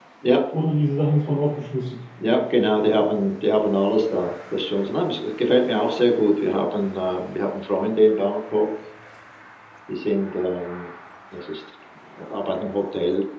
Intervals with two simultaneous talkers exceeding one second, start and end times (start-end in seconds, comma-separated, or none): none